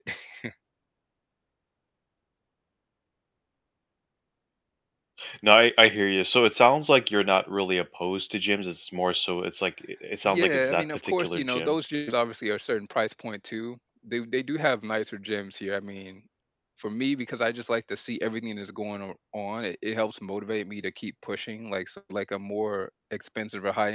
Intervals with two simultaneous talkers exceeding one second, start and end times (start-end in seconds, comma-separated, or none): 10.2-11.7